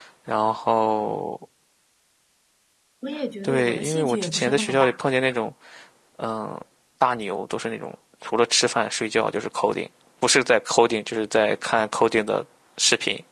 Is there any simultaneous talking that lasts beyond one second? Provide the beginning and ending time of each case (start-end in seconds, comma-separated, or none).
3.4-4.9